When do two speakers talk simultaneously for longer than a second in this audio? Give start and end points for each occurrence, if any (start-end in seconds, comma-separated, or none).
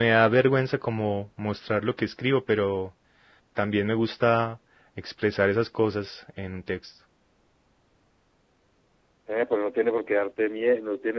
none